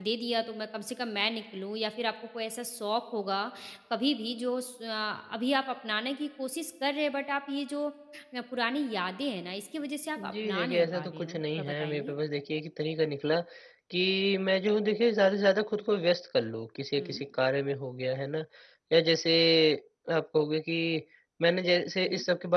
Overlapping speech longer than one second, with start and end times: 10.2-12.1

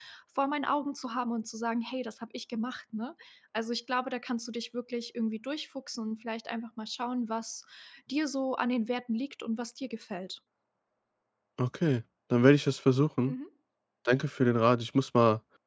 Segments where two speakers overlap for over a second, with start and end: none

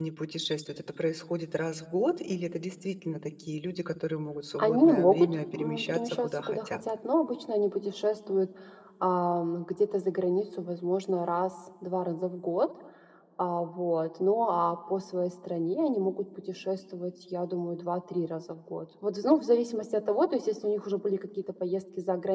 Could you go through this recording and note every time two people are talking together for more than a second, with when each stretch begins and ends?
4.6-6.8

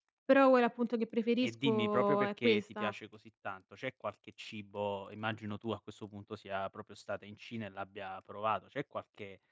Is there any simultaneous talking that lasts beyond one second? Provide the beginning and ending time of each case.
1.4-2.9

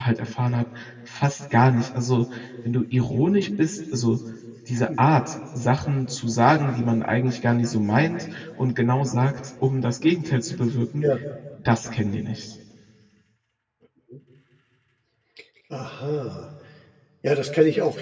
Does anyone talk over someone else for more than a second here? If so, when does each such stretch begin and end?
none

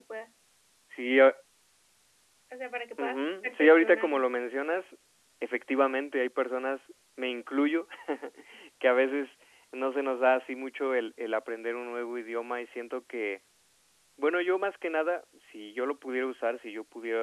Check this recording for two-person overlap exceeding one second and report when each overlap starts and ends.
3.0-4.2

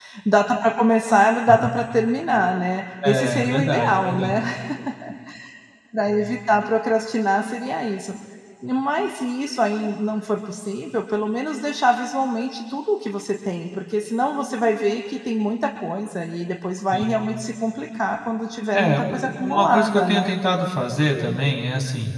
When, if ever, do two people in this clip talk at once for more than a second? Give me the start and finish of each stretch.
3.0-4.3, 18.7-20.3

